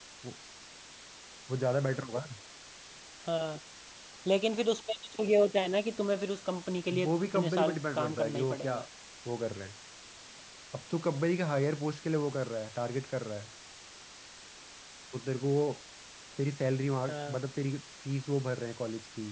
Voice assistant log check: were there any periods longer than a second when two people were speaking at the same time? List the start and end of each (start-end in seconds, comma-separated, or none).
7.0-8.8